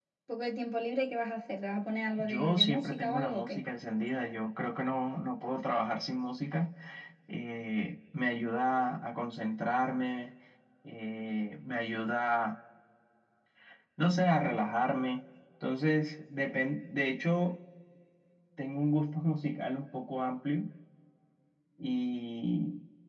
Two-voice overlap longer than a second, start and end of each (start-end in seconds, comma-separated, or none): 2.2-3.6